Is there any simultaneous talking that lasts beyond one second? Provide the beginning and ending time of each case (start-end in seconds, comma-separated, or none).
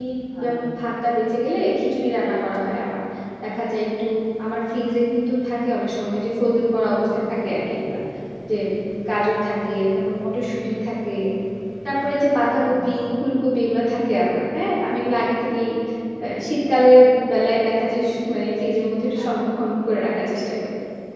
none